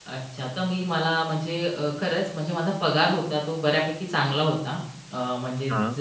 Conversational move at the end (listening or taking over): listening